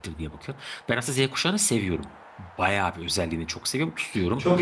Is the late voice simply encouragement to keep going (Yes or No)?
No